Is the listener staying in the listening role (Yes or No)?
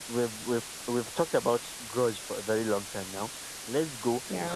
Yes